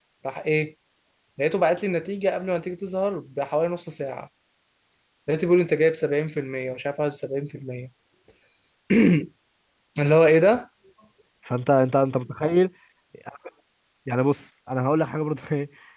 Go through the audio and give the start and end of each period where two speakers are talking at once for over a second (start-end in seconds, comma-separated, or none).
none